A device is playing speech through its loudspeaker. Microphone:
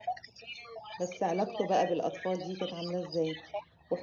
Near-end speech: present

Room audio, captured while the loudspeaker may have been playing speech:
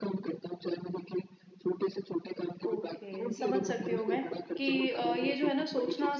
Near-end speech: present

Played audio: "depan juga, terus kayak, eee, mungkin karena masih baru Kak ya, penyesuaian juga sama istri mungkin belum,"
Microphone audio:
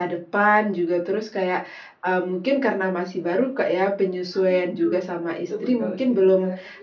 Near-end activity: present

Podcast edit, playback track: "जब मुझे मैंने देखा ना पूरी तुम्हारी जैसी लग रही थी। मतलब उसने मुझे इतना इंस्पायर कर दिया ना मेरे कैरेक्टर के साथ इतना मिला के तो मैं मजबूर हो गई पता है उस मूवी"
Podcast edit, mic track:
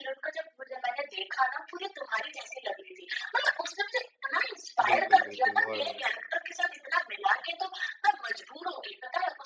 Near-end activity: present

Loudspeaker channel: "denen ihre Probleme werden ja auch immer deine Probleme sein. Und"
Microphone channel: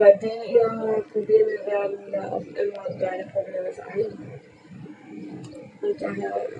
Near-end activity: none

